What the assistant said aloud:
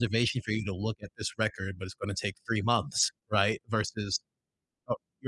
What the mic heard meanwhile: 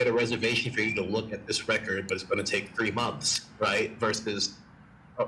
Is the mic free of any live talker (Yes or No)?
Yes